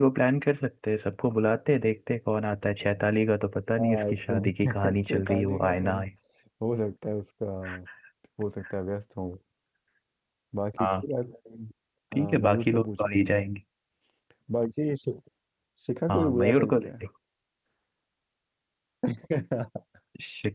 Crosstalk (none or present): present